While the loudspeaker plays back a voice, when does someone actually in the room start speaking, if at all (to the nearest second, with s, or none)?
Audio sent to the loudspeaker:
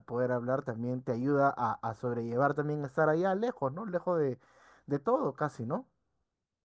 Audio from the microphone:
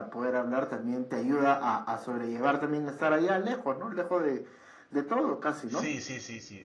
6 s